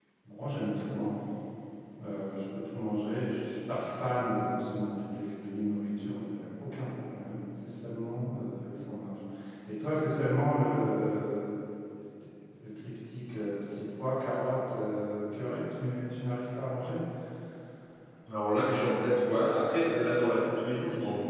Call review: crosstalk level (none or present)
none